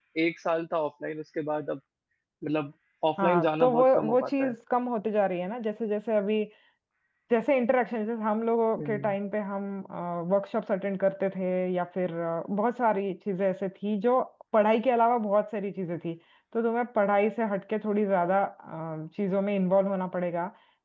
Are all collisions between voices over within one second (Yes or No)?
No